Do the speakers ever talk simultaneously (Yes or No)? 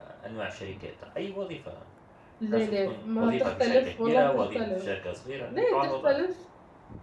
Yes